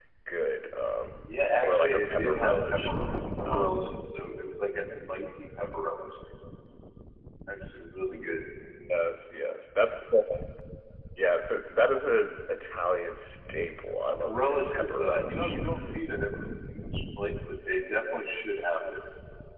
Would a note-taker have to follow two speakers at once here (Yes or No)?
Yes